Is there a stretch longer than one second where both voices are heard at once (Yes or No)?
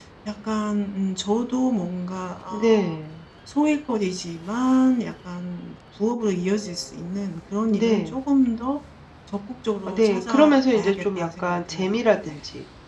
Yes